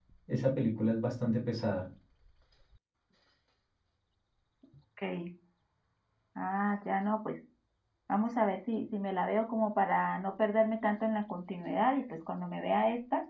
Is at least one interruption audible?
No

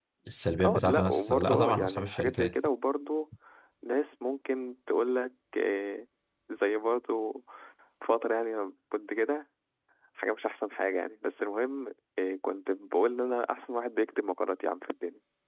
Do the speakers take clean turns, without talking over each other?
No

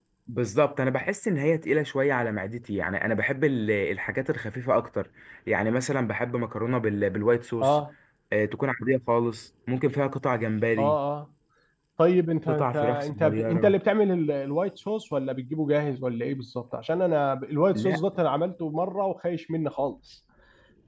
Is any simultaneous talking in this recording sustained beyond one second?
Yes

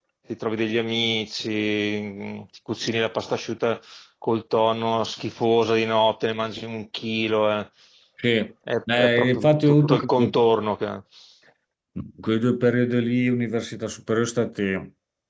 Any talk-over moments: Yes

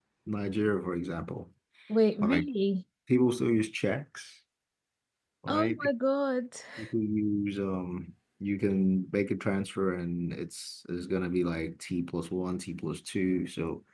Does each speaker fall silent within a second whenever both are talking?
Yes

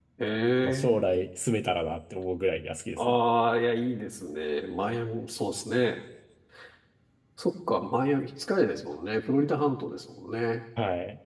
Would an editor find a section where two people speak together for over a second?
No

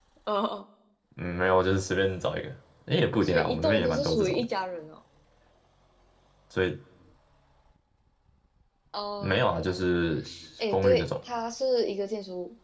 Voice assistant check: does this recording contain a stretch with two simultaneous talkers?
Yes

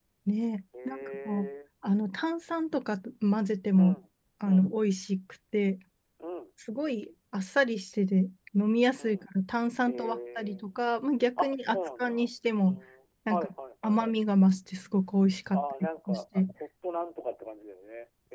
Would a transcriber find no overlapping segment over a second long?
No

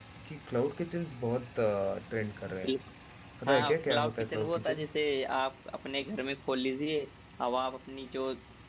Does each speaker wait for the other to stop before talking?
No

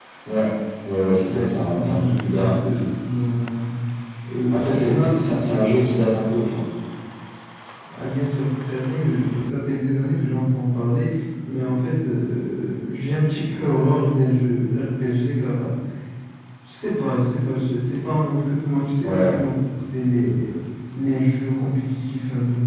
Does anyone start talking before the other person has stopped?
Yes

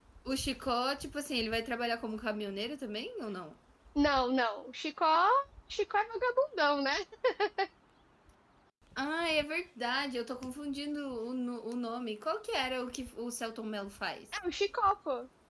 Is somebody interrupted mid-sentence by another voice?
No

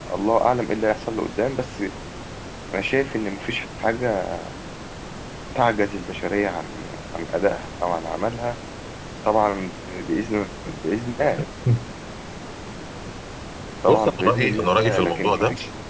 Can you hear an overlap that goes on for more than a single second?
Yes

